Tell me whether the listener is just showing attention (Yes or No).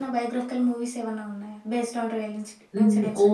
No